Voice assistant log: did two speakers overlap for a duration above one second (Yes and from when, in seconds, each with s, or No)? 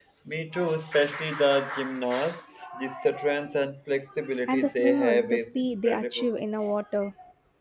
Yes, from 4.5 s